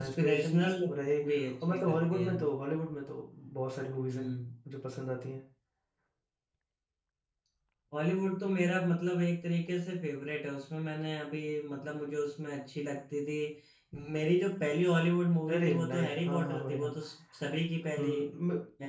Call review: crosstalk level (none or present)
present